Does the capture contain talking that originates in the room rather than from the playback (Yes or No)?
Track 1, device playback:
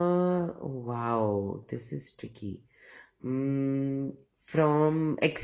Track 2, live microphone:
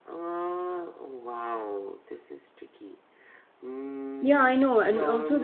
Yes